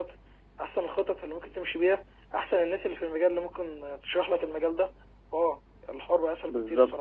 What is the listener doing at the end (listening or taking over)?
taking over